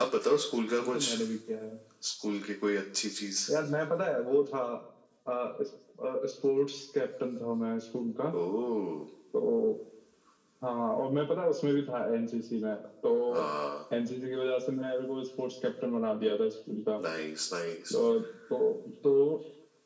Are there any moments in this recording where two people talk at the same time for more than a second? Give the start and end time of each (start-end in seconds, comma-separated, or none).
none